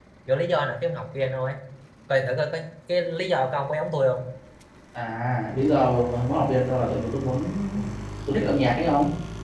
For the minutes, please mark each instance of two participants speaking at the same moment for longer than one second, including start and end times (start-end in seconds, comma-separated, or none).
none